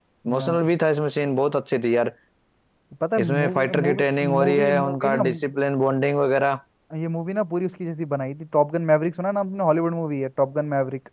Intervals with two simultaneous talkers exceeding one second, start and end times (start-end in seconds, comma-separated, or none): 3.2-5.2